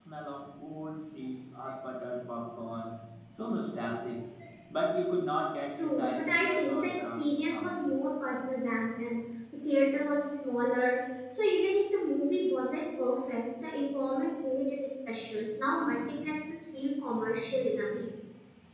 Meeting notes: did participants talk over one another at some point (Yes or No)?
Yes